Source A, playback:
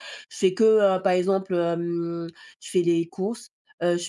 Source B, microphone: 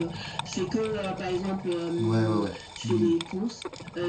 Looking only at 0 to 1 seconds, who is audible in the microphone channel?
echo only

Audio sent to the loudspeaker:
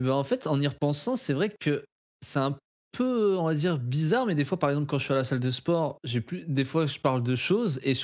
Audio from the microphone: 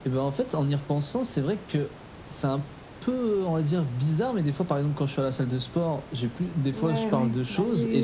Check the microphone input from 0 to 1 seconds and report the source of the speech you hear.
echo only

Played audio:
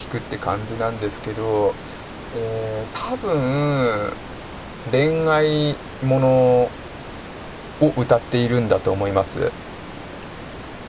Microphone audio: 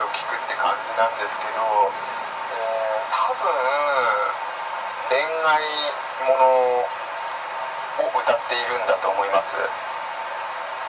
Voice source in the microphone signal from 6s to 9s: echo only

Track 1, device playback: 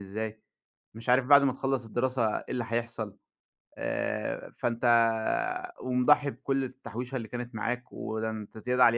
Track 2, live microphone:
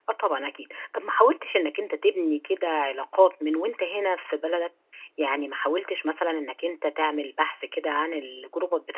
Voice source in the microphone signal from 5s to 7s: user only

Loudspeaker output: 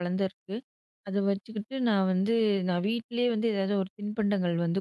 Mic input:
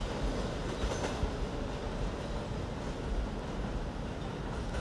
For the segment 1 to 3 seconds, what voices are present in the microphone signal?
neither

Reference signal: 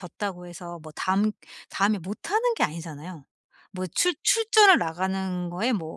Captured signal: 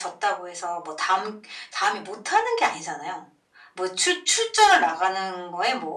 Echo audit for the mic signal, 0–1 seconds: echo only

